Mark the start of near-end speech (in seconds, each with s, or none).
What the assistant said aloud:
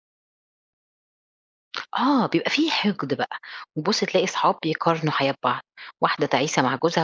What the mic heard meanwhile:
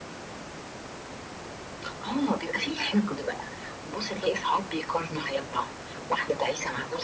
none